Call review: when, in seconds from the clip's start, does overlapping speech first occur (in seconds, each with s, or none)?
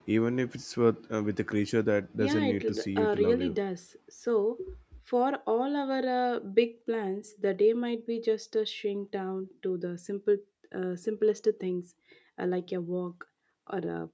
2.2 s